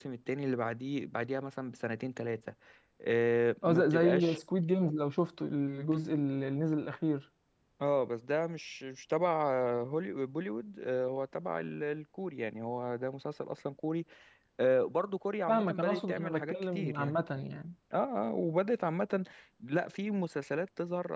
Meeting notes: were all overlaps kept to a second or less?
No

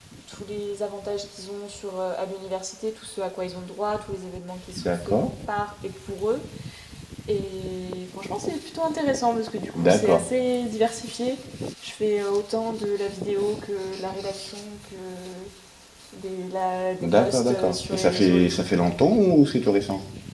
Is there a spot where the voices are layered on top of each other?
Yes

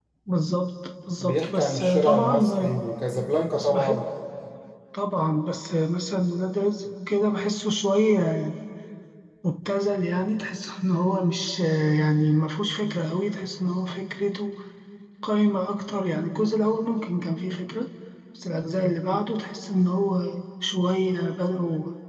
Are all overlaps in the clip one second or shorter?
No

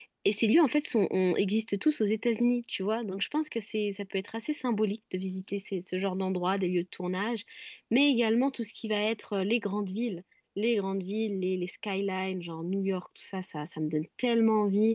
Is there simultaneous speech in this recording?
No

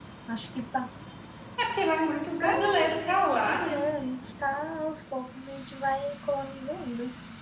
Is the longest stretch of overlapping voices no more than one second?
Yes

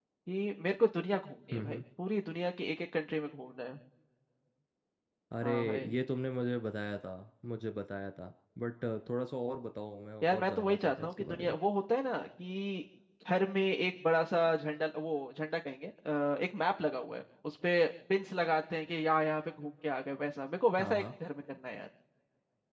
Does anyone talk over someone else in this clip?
Yes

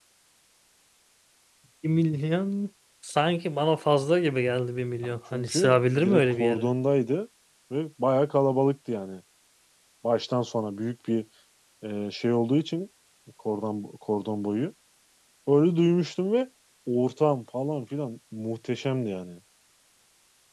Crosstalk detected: Yes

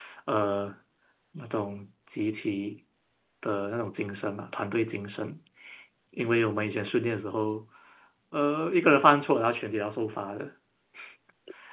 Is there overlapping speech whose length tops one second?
No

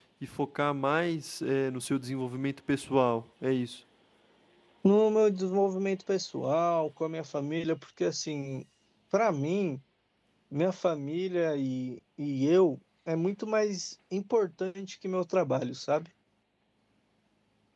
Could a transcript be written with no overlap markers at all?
Yes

